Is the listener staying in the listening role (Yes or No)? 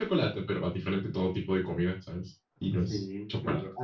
No